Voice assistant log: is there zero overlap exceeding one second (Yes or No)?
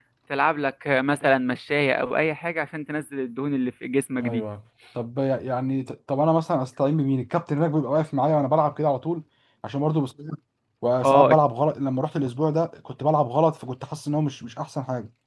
Yes